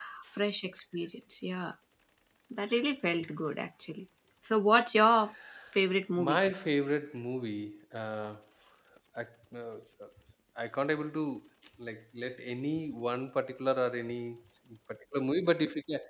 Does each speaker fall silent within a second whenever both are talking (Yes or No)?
Yes